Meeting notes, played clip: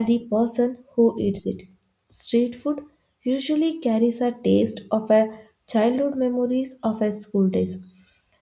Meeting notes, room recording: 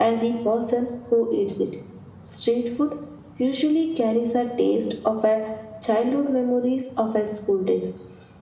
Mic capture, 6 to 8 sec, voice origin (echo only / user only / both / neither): echo only